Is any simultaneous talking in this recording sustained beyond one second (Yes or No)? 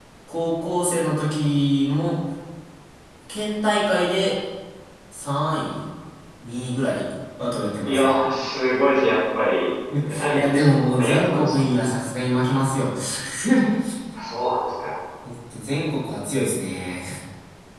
Yes